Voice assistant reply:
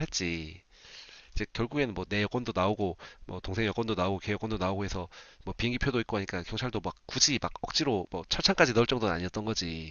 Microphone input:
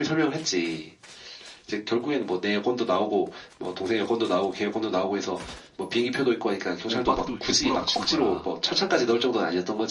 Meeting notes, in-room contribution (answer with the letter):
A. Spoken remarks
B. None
A